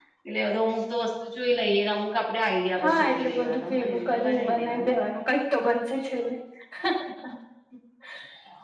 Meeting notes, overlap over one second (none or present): present